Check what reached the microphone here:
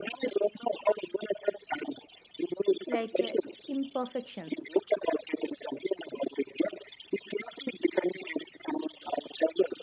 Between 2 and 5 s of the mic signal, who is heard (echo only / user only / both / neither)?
both